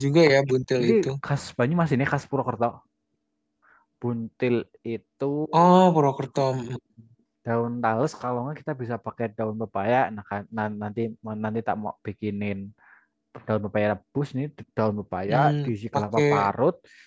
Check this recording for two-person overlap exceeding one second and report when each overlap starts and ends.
15.3-16.5

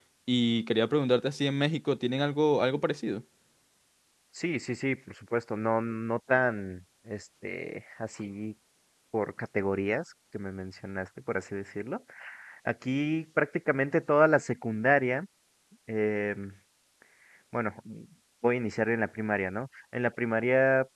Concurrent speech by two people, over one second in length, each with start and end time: none

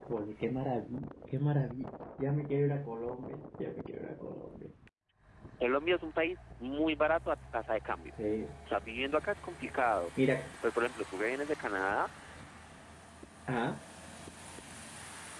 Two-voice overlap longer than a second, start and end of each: none

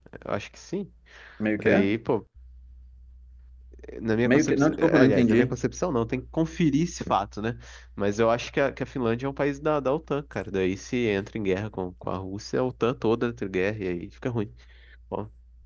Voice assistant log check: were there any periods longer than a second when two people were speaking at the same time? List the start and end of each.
4.2-5.5

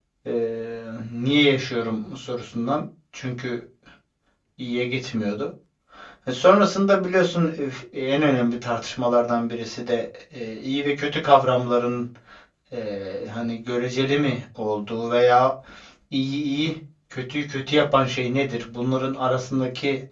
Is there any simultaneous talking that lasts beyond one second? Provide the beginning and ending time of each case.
none

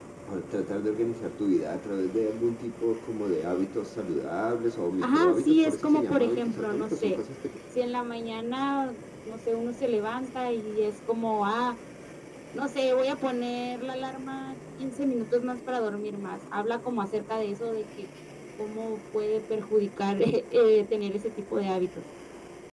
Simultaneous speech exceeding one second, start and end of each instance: 5.0-7.2

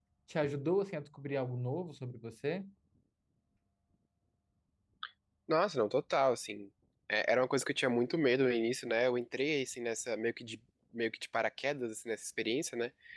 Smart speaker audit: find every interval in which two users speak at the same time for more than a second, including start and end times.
none

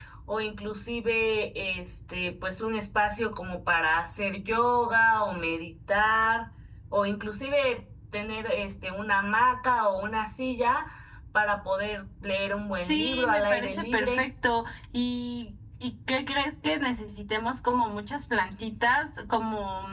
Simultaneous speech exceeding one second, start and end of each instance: 12.9-14.2

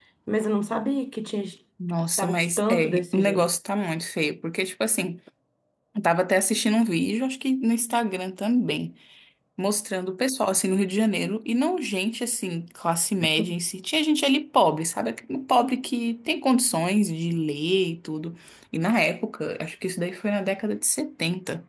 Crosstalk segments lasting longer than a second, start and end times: 2.2-3.5

